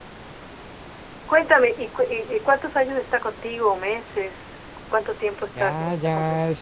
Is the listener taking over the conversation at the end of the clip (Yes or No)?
Yes